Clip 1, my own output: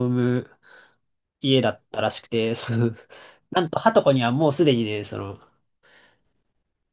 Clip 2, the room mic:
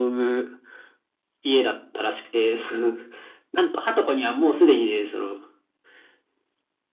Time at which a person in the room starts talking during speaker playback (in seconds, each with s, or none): none